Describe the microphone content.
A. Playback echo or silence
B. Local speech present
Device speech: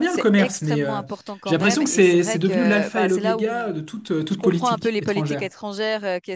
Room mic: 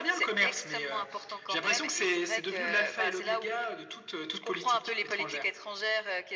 A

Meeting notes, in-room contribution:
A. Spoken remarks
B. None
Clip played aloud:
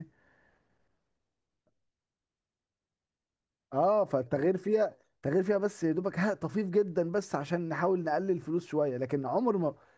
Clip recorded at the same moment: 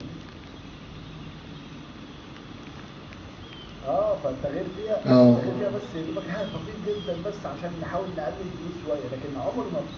A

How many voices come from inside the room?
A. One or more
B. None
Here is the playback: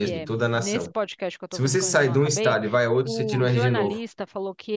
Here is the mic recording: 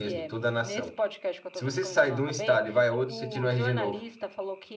B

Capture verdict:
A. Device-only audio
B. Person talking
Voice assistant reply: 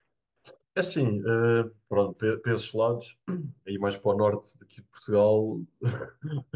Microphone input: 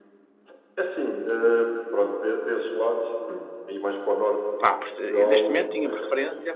B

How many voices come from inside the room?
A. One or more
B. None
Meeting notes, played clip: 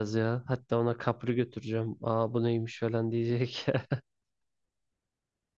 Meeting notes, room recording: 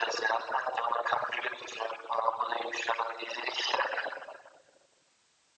B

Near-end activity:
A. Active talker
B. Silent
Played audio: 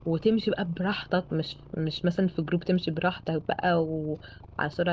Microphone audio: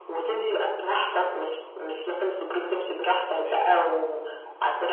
A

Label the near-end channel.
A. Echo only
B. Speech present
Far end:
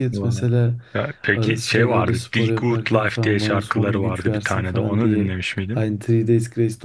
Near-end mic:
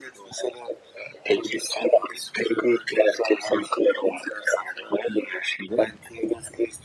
A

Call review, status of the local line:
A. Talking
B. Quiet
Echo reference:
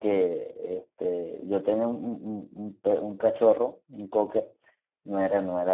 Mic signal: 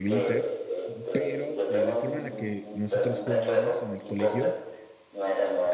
A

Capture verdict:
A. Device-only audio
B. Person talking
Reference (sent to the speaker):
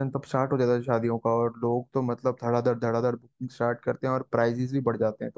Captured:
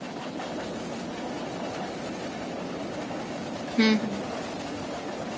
B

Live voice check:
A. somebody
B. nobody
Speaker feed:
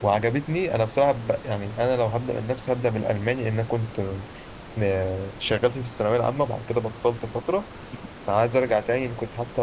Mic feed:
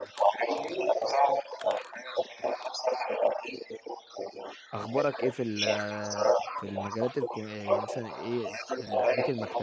A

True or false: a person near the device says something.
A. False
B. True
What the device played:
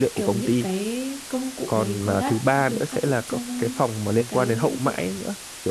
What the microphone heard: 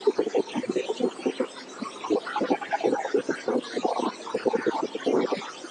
A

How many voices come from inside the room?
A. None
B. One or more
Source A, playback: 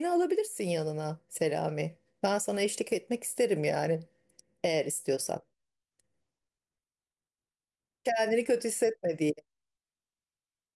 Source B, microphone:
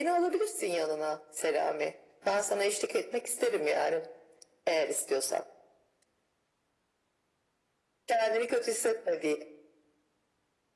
A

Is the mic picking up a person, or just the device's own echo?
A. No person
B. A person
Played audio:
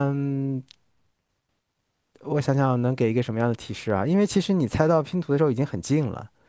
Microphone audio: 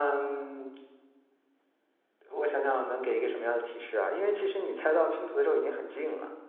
A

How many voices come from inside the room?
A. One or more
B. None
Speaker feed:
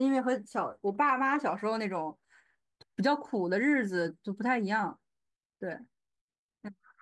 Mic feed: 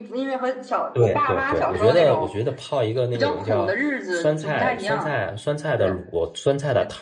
A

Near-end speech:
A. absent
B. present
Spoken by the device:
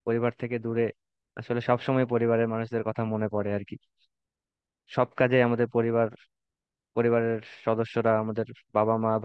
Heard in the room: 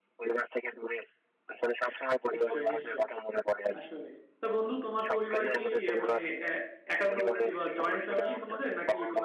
B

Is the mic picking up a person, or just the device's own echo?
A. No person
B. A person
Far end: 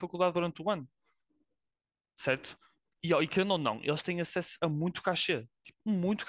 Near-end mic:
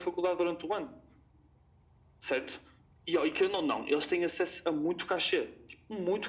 A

